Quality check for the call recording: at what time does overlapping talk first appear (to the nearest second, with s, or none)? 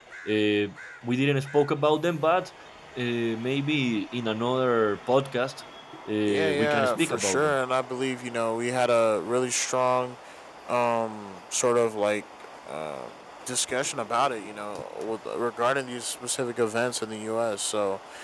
6 s